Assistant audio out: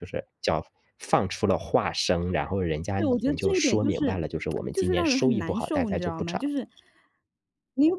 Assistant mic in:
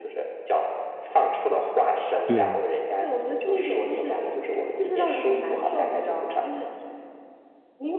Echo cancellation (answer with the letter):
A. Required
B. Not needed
A